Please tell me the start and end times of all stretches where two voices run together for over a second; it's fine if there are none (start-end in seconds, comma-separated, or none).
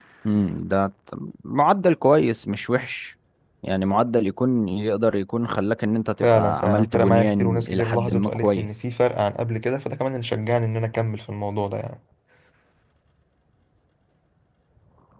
6.2-8.7